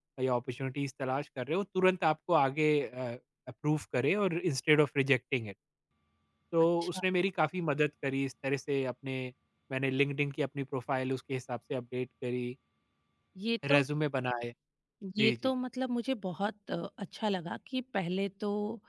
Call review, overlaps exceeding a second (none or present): none